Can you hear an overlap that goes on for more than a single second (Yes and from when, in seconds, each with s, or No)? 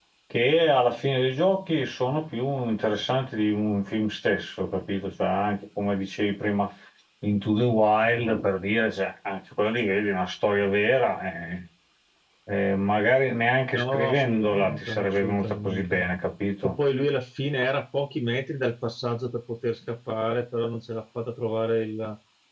Yes, from 13.7 s